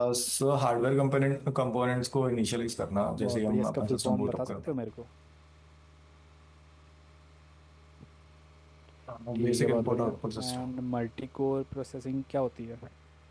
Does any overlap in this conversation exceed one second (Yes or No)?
Yes